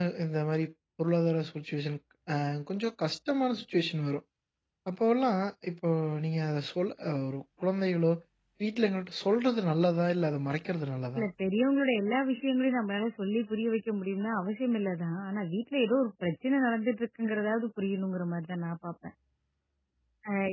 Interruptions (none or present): none